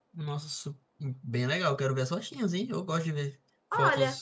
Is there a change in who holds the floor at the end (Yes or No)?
Yes